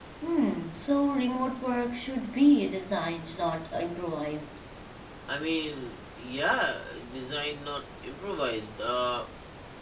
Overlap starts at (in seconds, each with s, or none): none